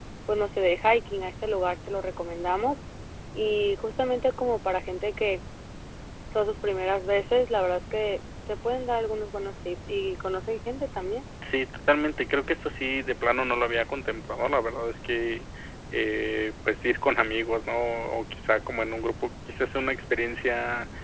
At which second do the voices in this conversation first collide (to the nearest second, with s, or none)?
none